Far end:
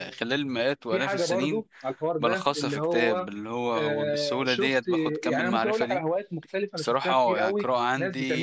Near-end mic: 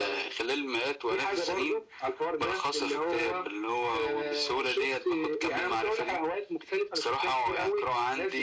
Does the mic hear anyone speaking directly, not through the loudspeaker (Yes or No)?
No